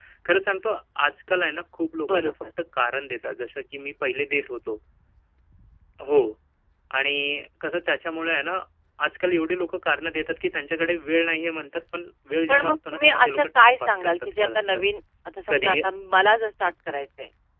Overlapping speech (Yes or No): Yes